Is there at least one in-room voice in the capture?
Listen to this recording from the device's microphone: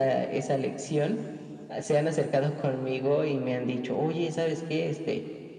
No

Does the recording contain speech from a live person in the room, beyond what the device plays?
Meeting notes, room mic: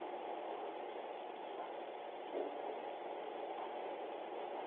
No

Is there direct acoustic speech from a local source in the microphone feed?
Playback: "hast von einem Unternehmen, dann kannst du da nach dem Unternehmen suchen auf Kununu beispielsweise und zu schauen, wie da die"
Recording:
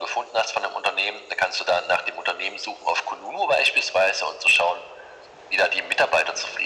No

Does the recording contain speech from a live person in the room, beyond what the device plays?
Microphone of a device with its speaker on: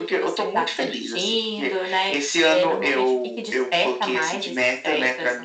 No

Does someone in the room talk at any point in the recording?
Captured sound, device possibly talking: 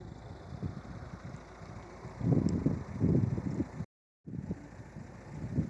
No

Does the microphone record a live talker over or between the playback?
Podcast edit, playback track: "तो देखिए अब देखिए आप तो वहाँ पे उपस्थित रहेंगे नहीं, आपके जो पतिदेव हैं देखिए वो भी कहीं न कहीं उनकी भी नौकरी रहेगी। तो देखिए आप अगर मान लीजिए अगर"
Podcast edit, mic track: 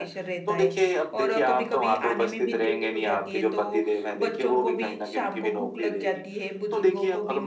Yes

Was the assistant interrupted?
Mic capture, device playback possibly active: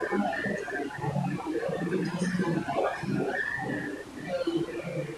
No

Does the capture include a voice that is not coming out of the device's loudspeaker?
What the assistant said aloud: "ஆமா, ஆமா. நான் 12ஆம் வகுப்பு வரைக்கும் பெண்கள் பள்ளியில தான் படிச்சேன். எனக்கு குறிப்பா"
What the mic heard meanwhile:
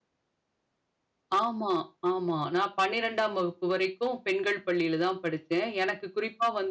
No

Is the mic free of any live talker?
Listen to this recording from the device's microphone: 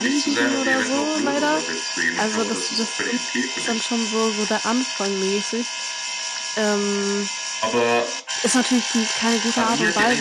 No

